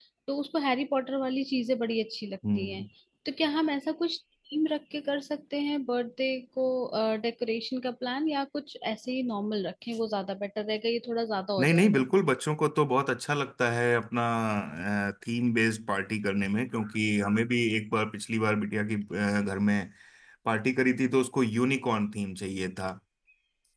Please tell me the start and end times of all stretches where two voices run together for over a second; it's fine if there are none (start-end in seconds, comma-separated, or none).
none